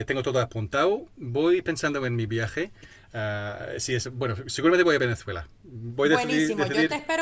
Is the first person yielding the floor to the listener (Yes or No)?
Yes